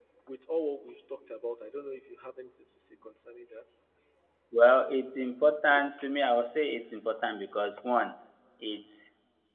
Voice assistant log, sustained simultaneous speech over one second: none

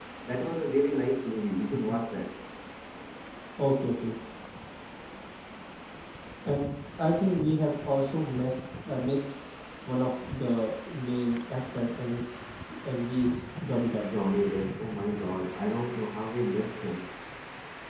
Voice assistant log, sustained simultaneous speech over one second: none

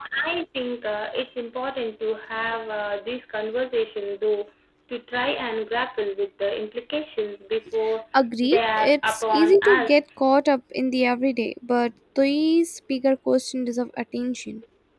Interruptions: present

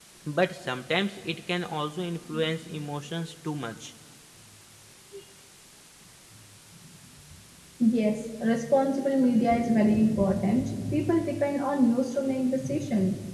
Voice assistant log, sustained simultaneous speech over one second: none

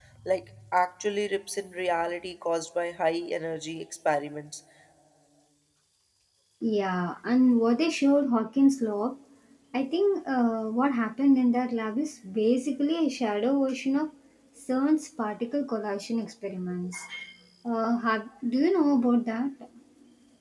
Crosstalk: none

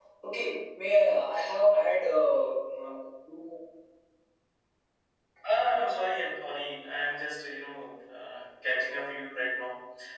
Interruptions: none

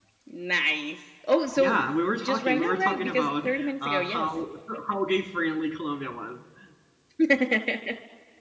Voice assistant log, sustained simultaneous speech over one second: present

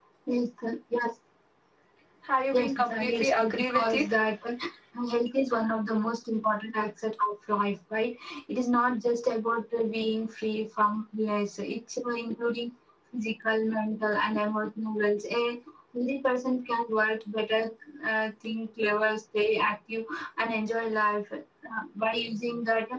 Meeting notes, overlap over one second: present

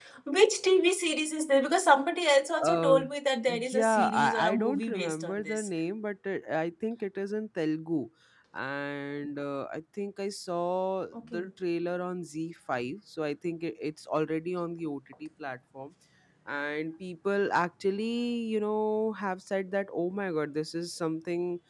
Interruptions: present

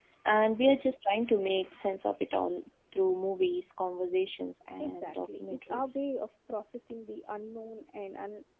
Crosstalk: present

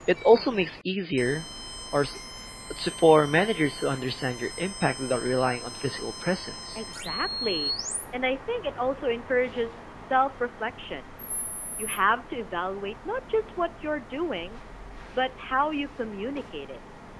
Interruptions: none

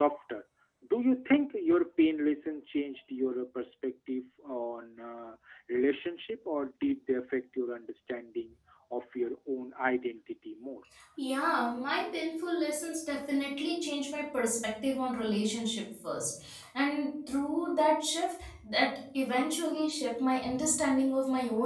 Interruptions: none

